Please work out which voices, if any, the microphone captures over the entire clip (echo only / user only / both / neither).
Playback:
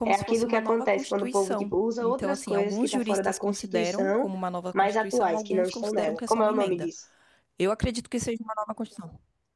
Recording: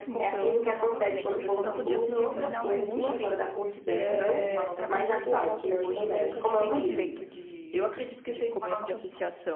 both